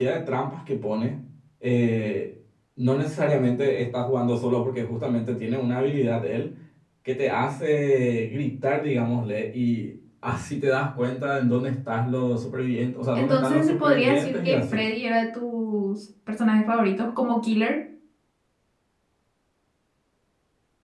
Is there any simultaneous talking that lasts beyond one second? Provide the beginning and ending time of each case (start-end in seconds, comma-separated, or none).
13.1-14.8